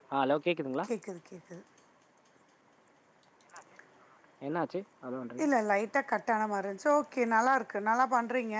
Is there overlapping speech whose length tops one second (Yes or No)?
No